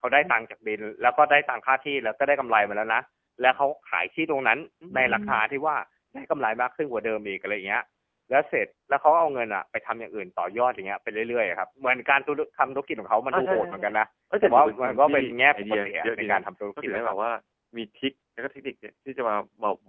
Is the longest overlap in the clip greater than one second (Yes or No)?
Yes